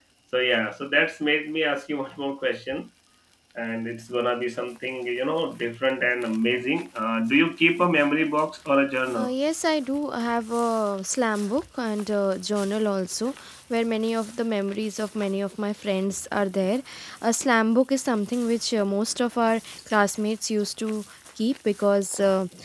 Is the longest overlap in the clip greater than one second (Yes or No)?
No